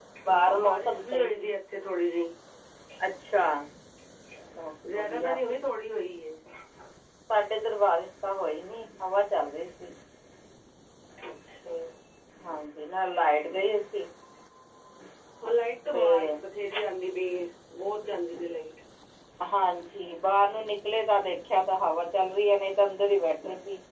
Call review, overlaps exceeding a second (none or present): present